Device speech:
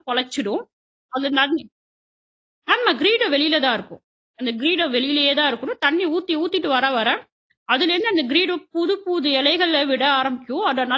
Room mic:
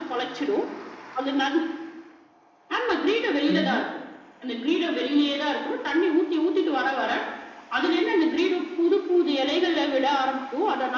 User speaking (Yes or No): Yes